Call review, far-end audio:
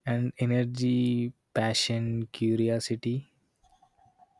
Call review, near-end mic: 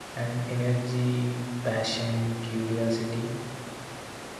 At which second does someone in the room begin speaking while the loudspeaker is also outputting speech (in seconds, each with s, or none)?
none